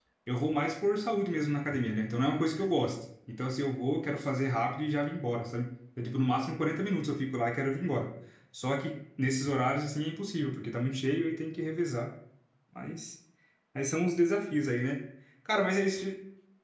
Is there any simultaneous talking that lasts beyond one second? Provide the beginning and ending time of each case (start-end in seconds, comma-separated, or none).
none